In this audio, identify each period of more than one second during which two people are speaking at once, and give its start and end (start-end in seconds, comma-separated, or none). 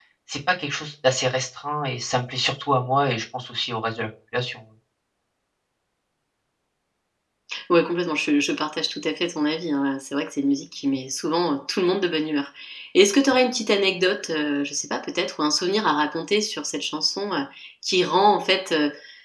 none